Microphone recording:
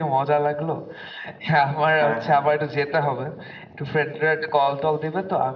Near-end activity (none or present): present